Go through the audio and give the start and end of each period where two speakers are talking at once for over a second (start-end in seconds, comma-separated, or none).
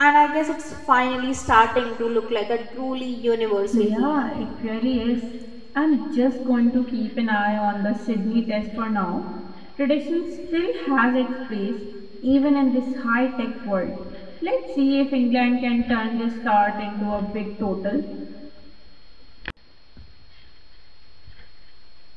none